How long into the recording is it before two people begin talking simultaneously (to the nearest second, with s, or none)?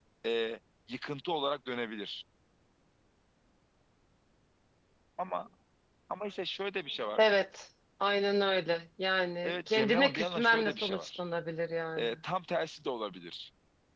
9 s